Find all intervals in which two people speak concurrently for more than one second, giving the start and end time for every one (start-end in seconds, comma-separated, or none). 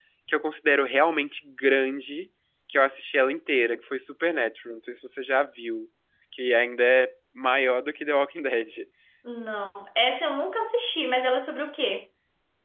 none